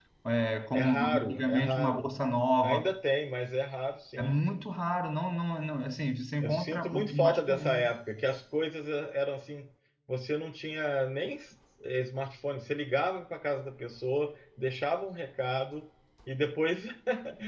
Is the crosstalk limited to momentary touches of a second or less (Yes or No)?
No